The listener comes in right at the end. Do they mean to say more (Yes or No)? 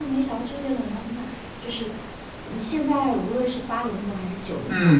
Yes